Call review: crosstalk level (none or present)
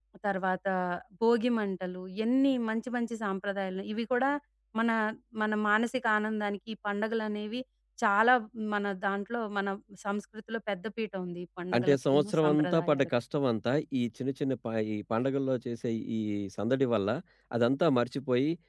present